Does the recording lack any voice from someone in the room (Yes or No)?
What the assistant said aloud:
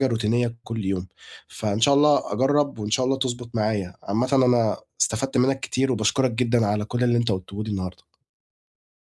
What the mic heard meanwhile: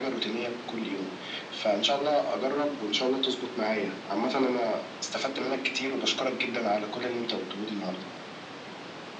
Yes